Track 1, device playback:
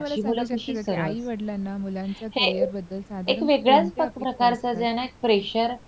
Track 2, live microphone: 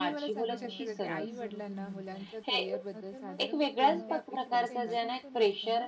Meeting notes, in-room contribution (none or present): present